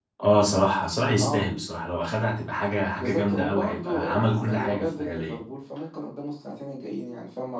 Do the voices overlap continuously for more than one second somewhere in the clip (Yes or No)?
Yes